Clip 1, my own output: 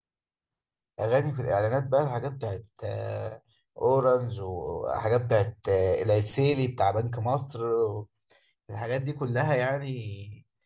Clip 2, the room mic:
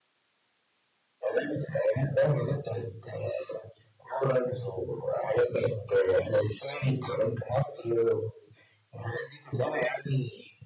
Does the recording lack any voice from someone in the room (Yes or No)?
Yes